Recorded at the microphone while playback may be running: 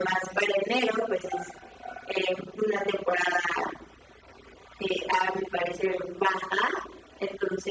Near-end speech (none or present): none